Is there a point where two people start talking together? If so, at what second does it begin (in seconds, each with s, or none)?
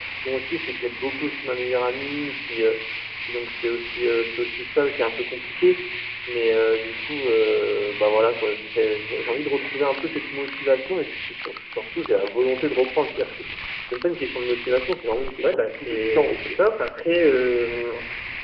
15.3 s